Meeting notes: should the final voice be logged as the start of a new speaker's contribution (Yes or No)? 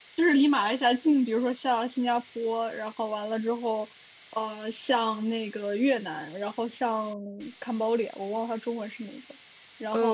Yes